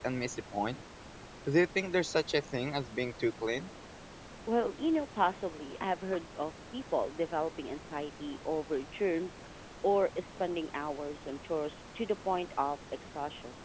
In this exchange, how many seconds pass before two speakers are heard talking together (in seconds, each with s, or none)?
none